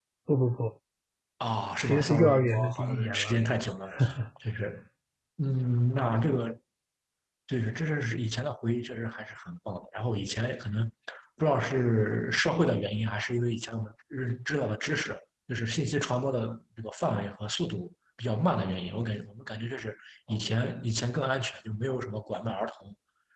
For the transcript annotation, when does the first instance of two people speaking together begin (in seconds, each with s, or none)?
1.7 s